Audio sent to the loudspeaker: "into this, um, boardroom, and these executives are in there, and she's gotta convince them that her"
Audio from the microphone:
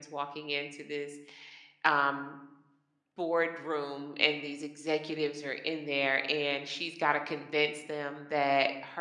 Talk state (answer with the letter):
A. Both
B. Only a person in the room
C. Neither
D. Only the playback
D